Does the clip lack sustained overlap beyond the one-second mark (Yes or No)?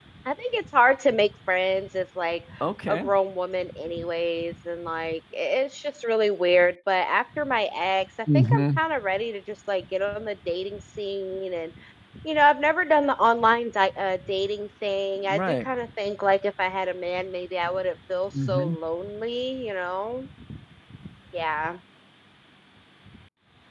Yes